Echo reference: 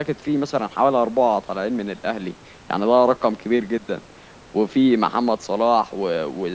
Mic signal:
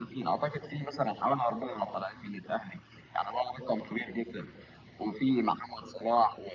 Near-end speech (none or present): none